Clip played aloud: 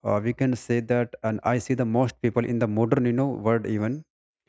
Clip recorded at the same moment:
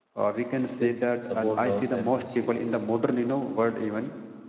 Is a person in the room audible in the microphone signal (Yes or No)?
Yes